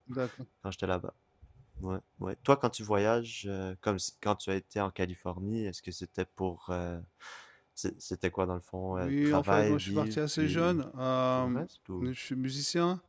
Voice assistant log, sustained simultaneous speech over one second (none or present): present